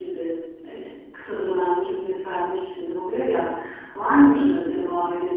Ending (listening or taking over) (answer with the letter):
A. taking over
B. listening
B